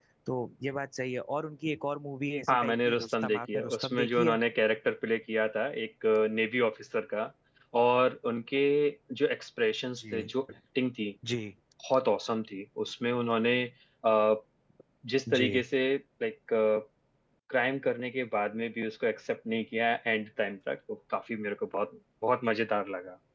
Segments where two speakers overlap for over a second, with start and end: 2.5-4.4

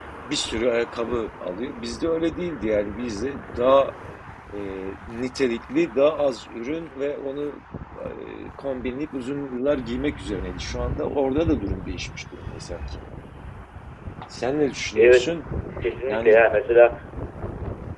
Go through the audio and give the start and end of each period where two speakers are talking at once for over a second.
none

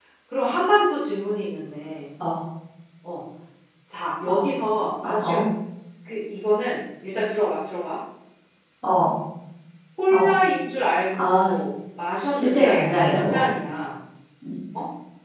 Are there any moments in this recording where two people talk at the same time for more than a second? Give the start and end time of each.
12.3-13.5

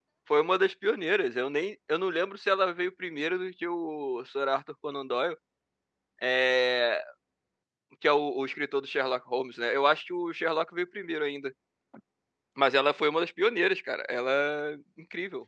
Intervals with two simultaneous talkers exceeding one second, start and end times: none

